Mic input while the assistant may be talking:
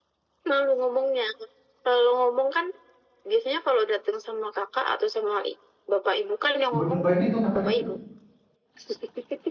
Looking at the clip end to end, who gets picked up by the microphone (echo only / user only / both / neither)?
both